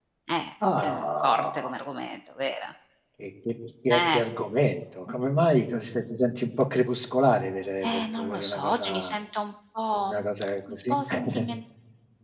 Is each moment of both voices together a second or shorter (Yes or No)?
No